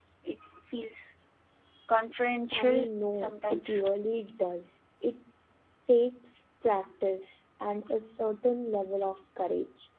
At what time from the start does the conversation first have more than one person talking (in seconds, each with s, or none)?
2.5 s